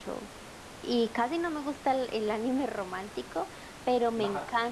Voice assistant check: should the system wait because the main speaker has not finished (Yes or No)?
Yes